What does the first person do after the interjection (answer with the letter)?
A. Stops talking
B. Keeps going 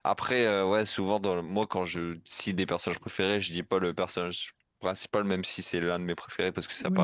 A